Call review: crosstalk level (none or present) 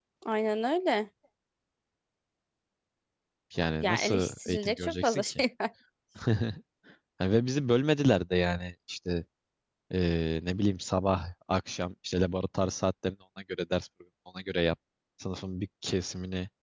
present